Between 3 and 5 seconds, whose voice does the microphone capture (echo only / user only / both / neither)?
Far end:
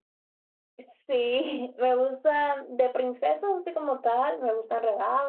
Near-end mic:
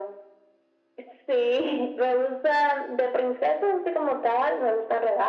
echo only